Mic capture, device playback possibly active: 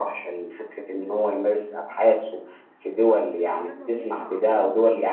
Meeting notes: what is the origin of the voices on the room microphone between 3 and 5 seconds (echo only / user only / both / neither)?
both